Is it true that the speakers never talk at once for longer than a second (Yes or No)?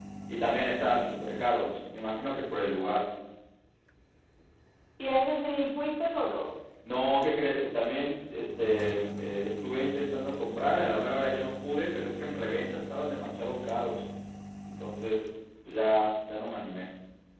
Yes